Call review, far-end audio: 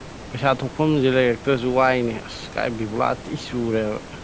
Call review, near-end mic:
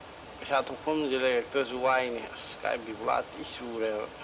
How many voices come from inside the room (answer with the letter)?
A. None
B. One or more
A